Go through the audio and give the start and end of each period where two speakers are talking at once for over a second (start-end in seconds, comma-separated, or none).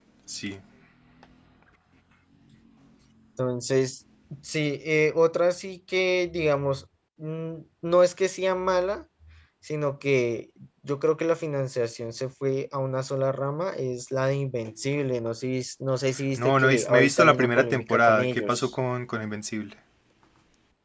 16.4-18.7